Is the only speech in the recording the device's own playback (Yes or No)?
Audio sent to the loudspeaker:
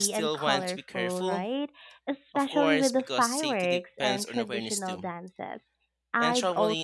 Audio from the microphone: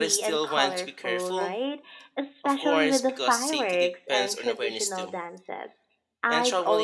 Yes